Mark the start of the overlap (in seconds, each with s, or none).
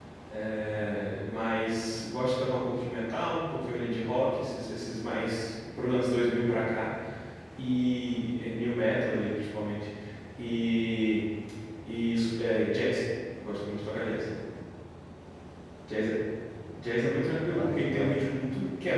17.0 s